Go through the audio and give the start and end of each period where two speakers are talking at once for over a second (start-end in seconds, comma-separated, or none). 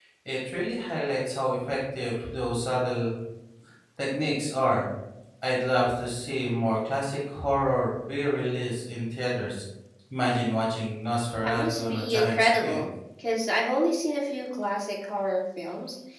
11.4-12.8